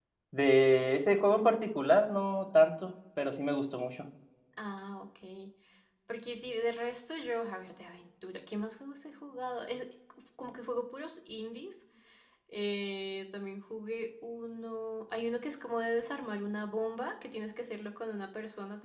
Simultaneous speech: No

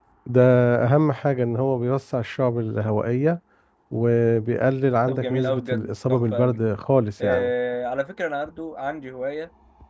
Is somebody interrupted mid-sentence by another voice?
Yes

